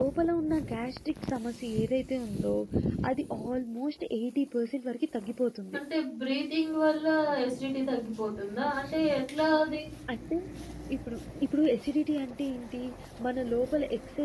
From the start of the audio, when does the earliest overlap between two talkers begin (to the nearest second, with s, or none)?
none